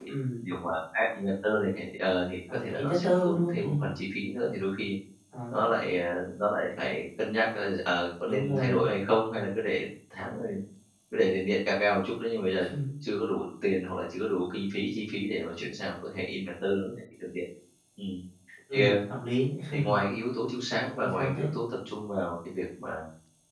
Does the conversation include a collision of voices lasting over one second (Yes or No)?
Yes